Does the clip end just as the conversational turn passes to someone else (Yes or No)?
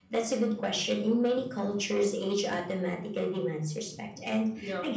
No